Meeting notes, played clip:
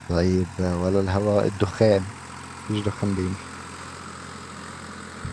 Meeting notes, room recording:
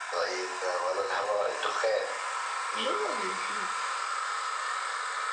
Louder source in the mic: echo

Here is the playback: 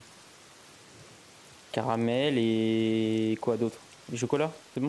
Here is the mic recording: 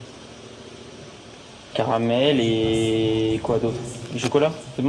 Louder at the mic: echo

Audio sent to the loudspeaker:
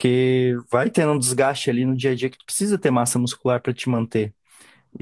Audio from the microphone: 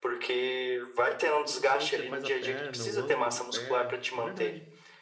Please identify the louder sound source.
echo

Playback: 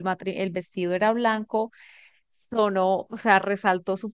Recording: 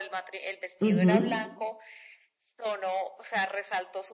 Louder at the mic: user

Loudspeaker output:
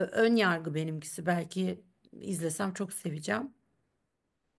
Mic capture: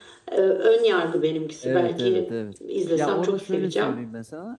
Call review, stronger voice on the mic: echo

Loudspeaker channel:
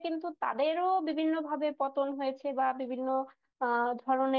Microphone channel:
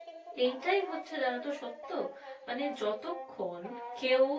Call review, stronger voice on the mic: user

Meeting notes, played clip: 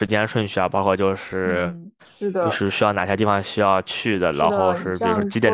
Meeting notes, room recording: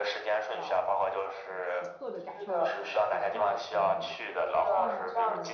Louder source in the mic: echo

